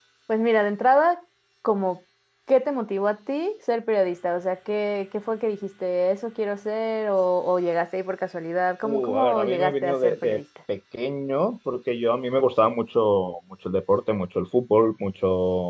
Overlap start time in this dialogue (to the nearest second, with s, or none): 9 s